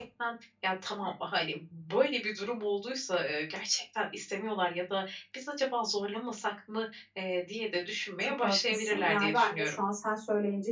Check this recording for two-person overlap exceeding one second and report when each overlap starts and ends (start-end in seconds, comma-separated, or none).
8.2-9.7